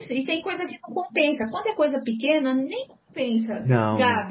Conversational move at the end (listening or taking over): listening